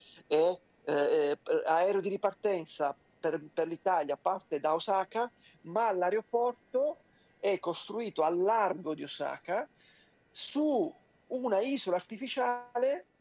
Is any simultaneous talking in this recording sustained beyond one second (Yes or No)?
No